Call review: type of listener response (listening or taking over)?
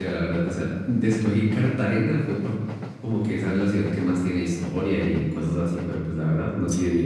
taking over